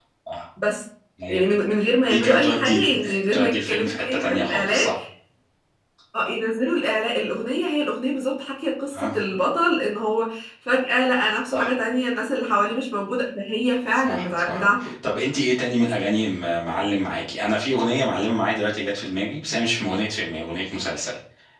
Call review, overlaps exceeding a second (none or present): present